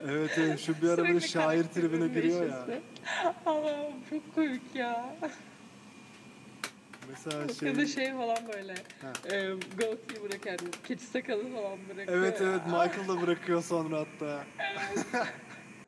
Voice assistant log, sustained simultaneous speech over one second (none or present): present